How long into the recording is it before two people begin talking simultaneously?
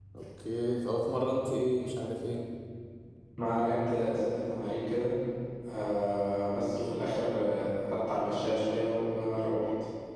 none

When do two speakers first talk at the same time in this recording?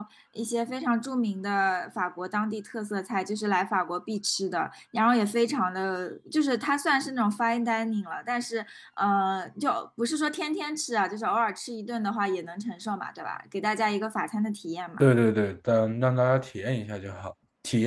none

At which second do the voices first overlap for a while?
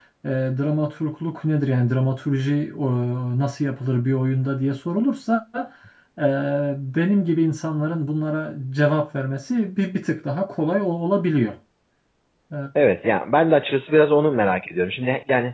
none

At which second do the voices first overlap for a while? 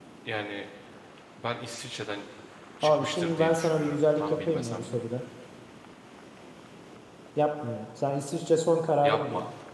2.8 s

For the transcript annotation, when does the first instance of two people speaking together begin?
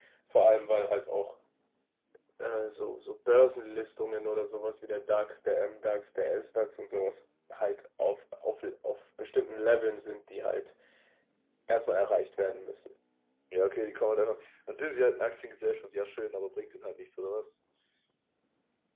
none

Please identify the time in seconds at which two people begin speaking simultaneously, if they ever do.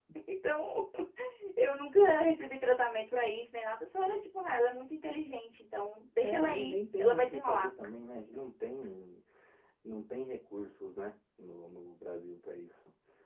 6.2 s

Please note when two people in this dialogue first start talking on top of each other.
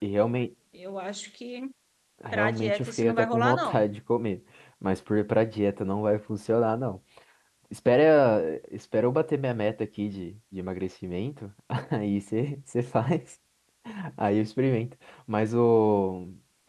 2.3 s

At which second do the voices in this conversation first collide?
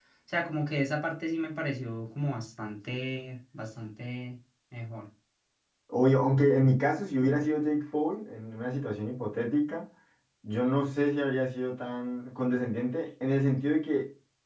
none

